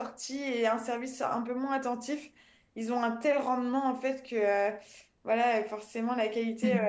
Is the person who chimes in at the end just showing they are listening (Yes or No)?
Yes